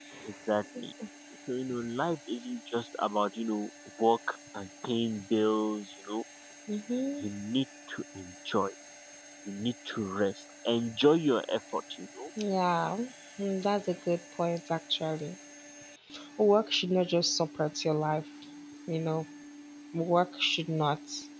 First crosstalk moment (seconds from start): none

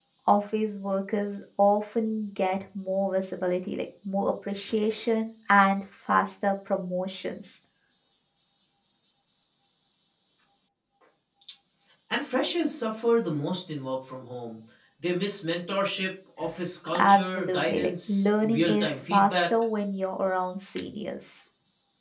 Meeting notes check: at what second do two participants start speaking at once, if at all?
17 s

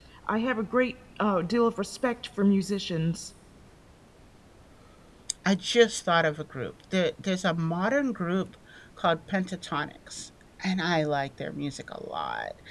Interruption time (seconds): none

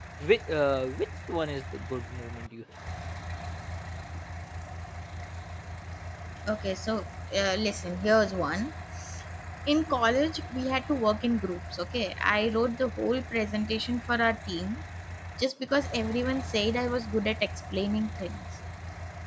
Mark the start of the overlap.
none

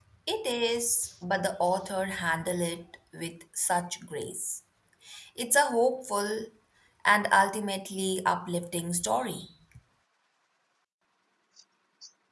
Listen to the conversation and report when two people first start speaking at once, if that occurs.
none

